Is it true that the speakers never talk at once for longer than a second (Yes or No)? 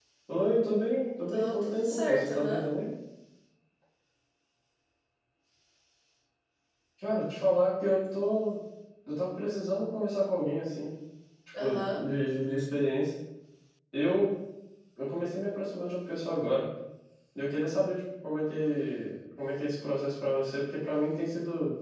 No